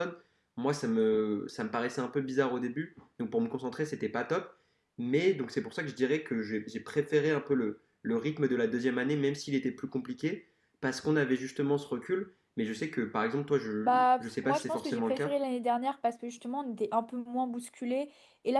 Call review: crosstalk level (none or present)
present